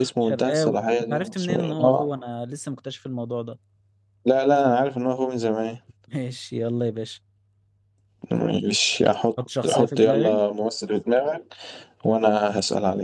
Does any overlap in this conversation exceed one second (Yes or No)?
Yes